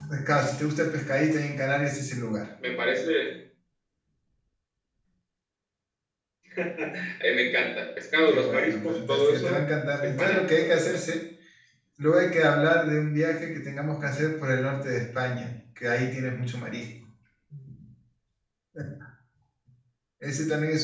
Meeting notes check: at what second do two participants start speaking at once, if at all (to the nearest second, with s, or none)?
8 s